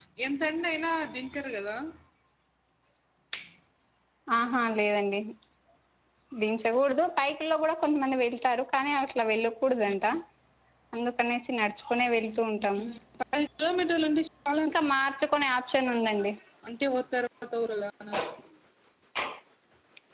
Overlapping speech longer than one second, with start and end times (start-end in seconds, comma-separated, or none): none